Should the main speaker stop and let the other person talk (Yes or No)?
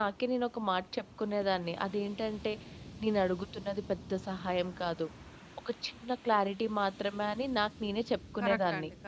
Yes